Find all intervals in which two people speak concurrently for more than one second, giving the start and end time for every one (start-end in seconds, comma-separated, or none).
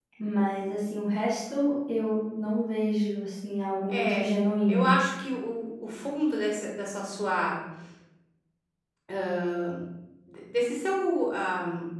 none